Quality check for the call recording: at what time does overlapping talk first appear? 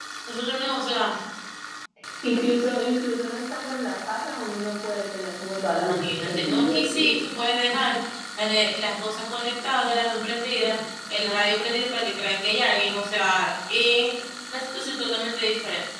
5.9 s

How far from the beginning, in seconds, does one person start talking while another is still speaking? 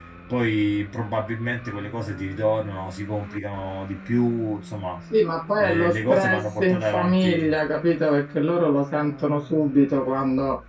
5.6 s

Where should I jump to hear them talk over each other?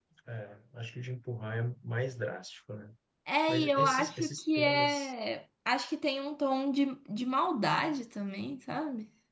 3.5 s

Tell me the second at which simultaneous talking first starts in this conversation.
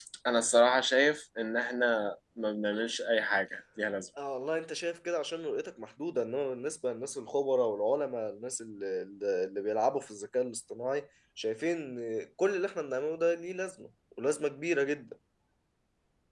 none

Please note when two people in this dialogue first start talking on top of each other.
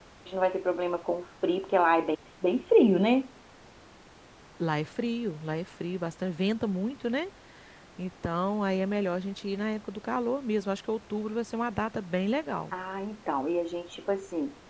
none

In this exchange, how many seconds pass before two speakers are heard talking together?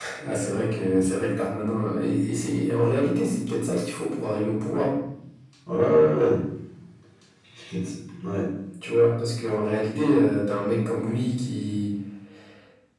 none

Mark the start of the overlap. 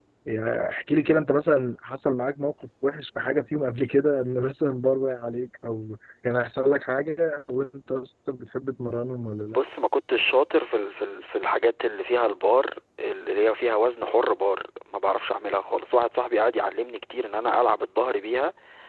none

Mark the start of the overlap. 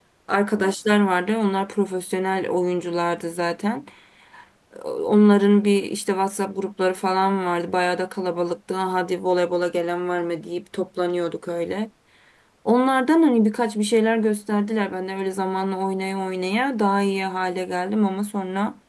none

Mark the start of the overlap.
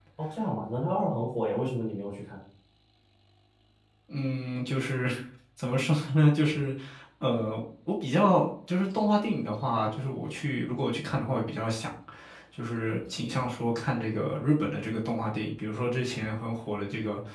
none

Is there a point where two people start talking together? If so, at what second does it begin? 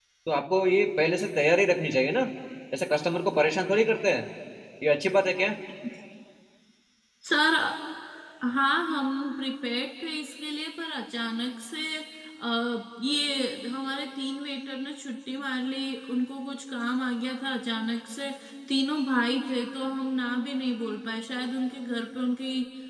none

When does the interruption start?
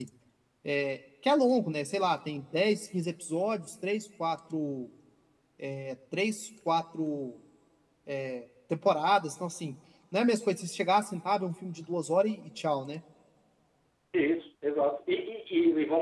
none

